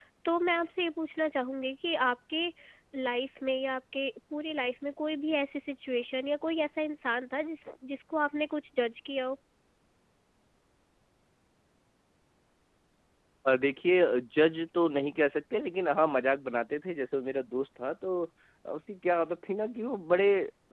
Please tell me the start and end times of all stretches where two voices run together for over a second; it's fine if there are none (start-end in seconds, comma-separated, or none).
none